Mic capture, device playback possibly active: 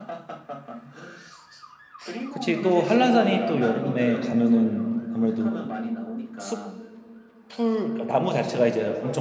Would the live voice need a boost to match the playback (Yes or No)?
No